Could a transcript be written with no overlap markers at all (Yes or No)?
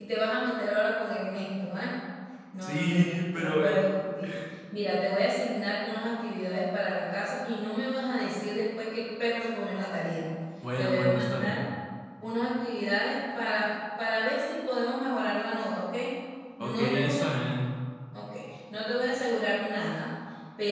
No